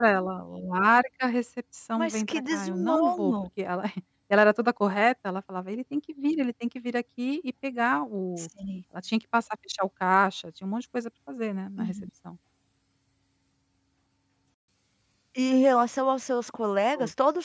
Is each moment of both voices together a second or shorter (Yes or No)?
No